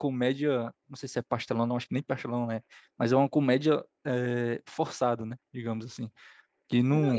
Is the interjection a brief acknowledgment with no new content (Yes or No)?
No